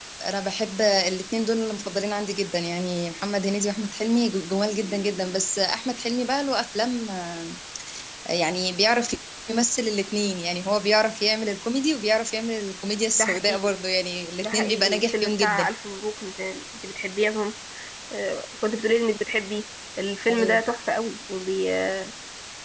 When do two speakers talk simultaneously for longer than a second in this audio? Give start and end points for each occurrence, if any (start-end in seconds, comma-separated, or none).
14.4-15.6